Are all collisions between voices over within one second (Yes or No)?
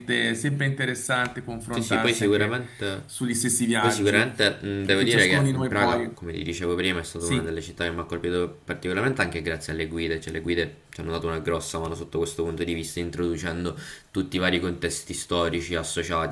No